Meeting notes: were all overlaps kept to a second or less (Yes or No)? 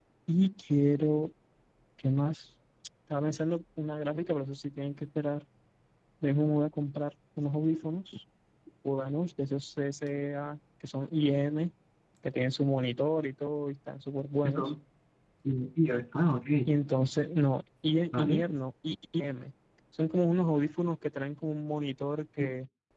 Yes